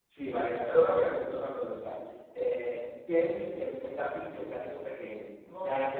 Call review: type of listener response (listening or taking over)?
taking over